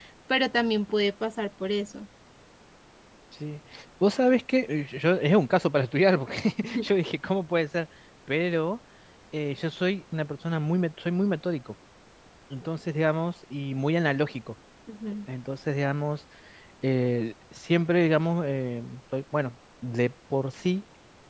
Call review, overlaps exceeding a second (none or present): none